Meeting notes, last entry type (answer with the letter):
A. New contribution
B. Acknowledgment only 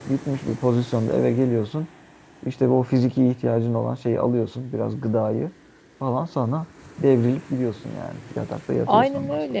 A